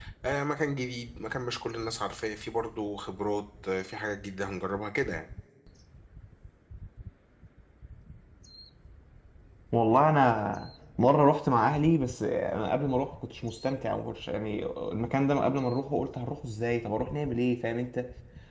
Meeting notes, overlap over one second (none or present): none